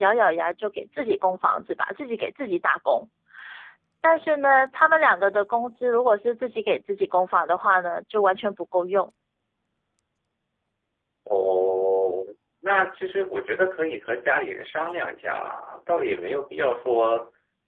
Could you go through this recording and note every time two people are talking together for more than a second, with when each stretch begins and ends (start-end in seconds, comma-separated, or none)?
none